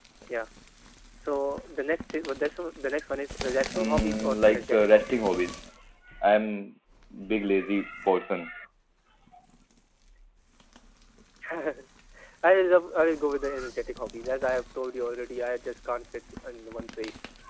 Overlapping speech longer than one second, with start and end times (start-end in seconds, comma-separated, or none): 3.8-5.3